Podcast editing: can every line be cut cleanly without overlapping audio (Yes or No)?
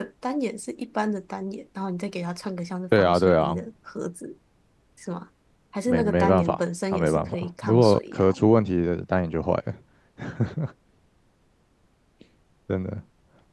No